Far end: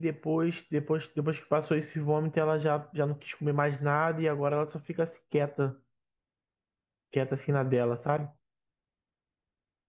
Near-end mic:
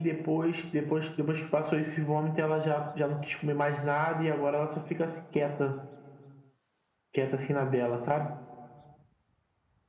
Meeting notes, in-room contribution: none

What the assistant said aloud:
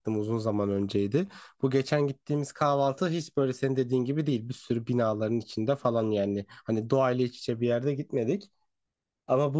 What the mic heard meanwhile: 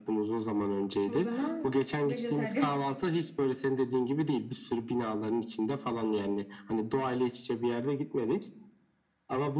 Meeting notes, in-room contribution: present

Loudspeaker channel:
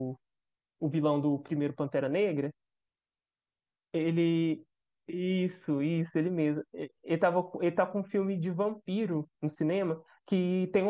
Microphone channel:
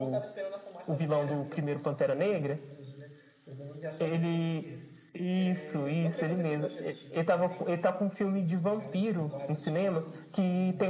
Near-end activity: present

